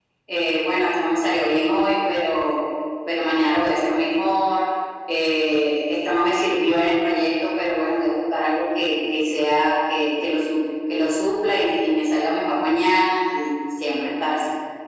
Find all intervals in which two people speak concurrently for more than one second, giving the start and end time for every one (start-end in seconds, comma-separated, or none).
none